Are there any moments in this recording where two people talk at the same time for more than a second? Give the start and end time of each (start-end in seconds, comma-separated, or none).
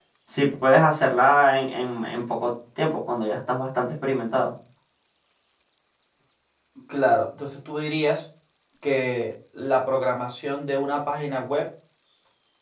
none